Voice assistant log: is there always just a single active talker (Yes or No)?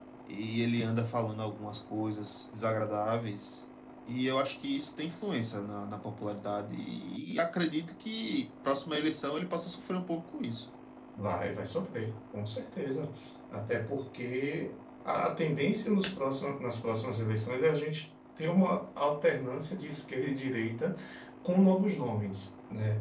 Yes